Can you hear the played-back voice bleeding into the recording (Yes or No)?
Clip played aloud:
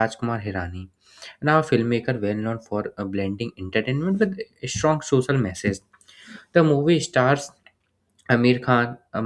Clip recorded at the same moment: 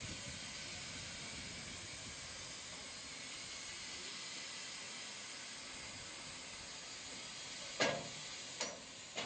No